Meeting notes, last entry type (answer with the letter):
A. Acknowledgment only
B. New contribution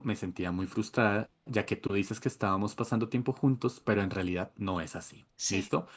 A